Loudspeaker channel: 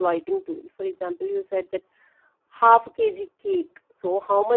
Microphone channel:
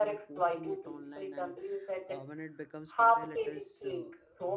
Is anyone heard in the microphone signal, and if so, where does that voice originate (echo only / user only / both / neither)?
both